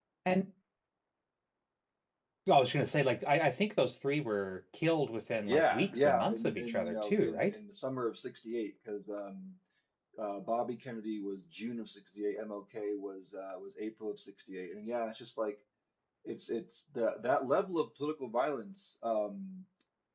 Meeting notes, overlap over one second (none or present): present